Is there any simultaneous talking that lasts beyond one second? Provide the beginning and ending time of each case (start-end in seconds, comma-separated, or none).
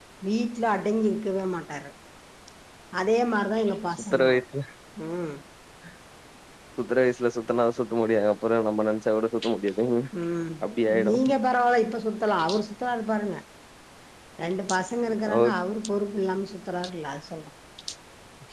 none